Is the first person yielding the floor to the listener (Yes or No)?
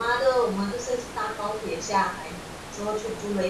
No